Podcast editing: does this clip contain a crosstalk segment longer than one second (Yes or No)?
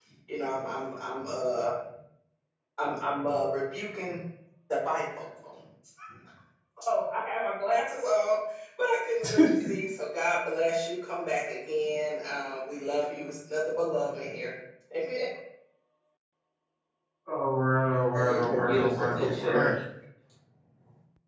Yes